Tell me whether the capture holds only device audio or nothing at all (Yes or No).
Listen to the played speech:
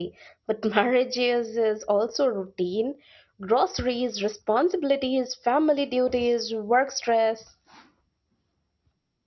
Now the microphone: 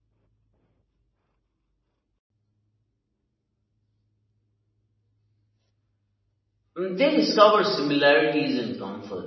No